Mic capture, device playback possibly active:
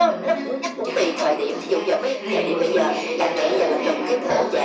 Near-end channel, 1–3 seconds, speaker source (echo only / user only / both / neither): both